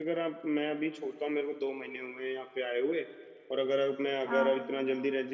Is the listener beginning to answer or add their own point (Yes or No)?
No